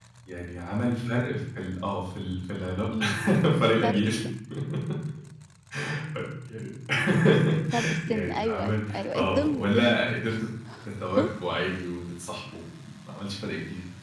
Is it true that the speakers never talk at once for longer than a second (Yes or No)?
No